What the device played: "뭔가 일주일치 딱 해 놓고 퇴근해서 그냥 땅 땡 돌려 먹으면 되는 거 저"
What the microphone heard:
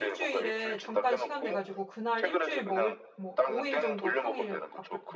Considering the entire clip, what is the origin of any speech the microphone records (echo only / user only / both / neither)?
both